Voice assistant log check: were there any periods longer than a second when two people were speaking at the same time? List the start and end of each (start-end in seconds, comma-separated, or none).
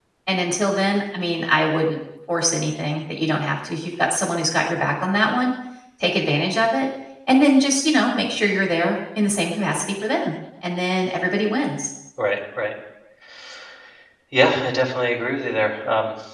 none